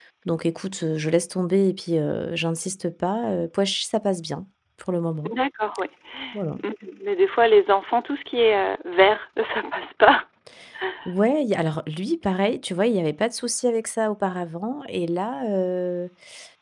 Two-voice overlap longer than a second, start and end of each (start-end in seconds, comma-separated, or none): none